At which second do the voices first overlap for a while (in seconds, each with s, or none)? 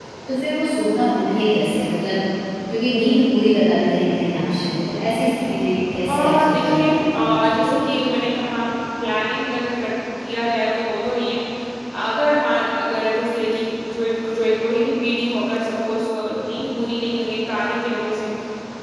6.1 s